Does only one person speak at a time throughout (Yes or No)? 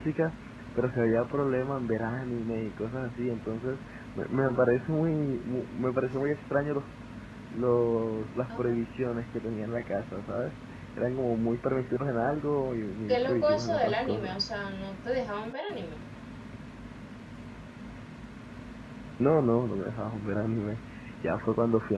No